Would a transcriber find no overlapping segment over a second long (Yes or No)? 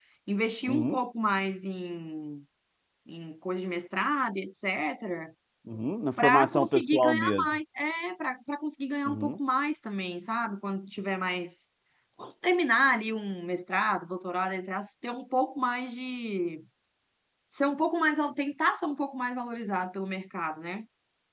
No